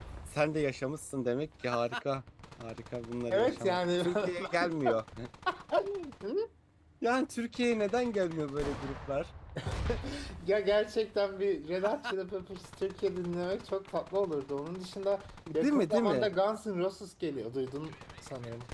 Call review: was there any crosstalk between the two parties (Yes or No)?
Yes